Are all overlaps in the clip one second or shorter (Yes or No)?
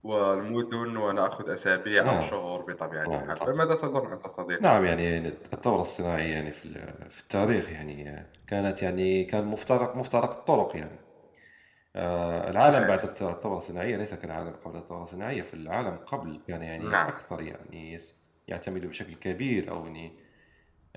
Yes